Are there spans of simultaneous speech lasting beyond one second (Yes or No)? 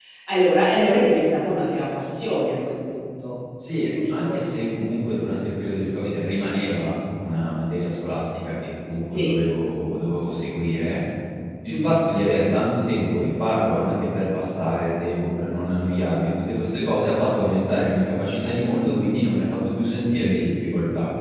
No